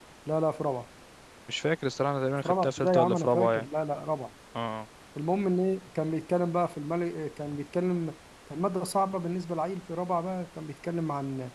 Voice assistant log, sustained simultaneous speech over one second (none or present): present